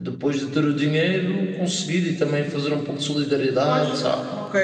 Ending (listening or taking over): taking over